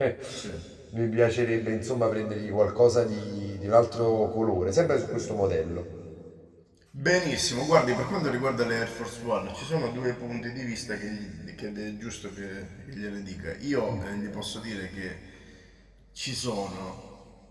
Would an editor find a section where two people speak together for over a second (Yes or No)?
No